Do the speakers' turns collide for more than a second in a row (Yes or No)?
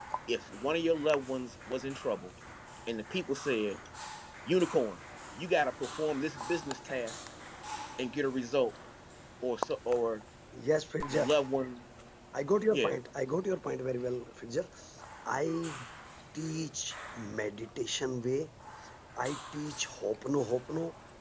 No